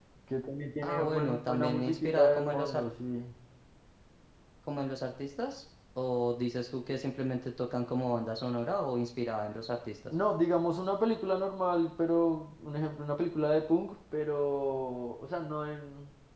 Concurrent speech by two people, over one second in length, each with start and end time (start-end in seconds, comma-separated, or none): 0.8-2.8